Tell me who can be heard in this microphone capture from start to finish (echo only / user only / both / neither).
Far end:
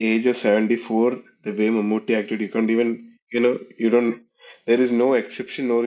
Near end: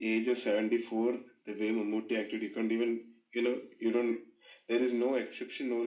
echo only